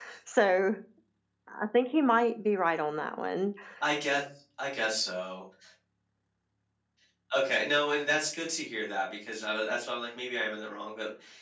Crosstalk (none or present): none